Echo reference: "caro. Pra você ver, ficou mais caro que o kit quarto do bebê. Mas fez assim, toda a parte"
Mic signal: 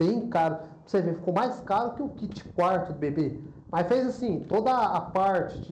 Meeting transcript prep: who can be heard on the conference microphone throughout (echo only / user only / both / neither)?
echo only